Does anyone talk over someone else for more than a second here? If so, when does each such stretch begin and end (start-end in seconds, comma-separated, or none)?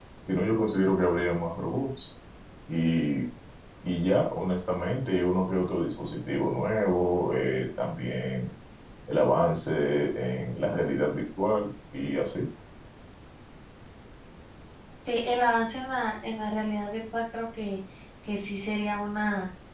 none